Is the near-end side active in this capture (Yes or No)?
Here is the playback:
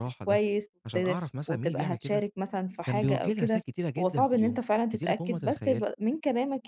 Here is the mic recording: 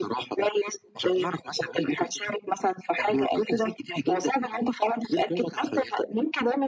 No